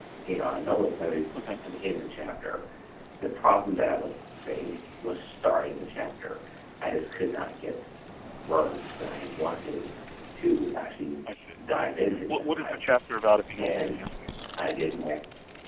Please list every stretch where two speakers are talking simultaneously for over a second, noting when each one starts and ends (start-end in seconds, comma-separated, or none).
none